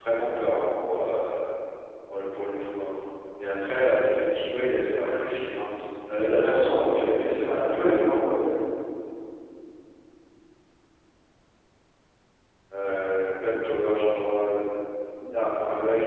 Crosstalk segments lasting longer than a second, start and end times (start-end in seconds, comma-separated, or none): 6.3-8.3